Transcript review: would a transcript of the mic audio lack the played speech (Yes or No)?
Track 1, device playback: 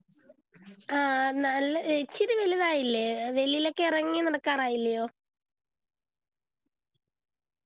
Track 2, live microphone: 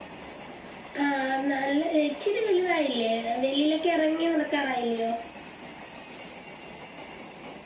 No